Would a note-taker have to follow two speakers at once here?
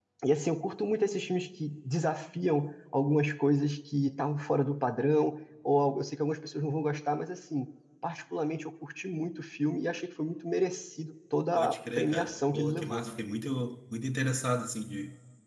Yes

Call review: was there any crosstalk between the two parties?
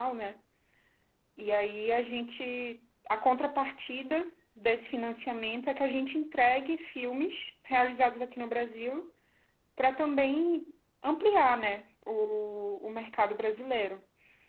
No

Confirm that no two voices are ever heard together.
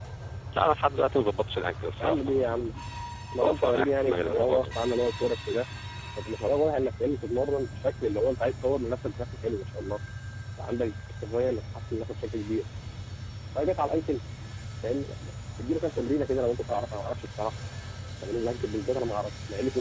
No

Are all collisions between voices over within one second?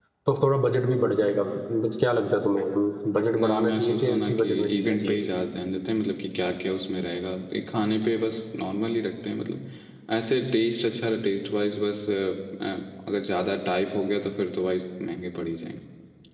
No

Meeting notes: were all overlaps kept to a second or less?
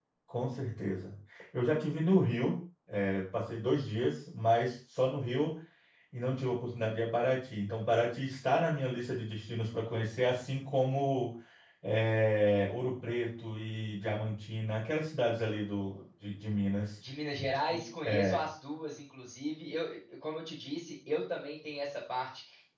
Yes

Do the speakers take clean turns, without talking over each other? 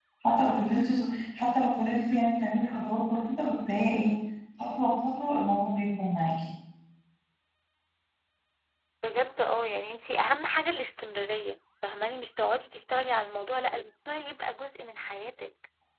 Yes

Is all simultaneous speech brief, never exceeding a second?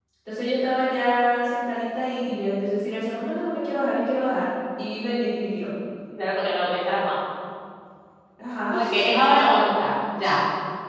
Yes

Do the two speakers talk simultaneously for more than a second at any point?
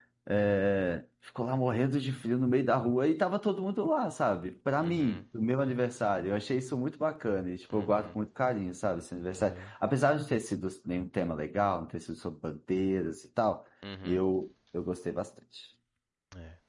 No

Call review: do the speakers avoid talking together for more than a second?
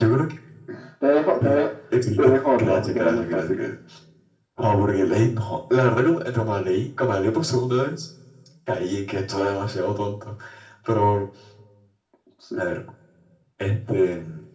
No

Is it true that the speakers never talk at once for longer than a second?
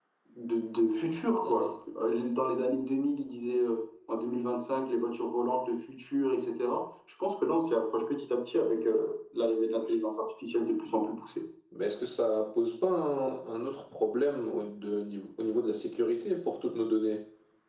Yes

